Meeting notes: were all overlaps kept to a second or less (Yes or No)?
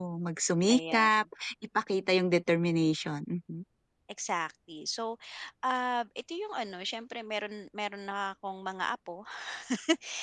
Yes